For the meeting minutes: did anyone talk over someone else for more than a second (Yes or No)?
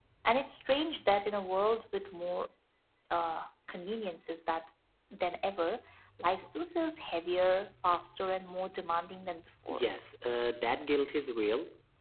No